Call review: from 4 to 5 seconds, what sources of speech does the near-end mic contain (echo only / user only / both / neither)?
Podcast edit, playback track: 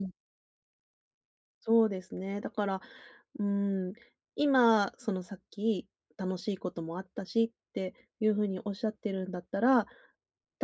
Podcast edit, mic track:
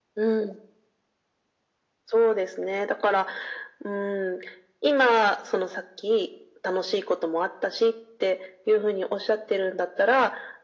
echo only